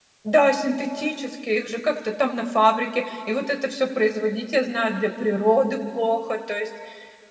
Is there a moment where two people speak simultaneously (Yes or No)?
No